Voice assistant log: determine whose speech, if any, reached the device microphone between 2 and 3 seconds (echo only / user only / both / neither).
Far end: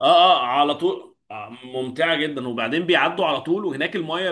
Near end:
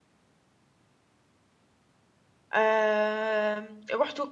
user only